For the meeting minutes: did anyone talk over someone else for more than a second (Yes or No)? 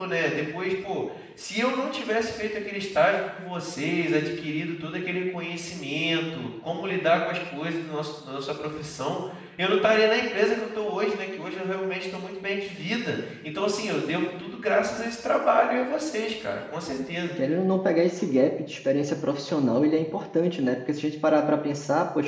No